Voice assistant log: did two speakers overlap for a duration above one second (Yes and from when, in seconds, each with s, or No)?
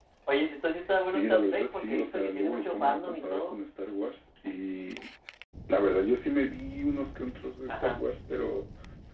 Yes, from 1.0 s